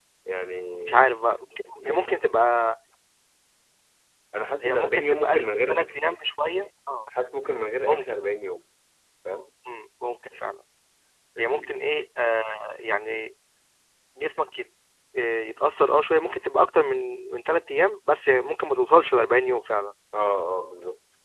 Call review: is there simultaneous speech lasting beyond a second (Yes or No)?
Yes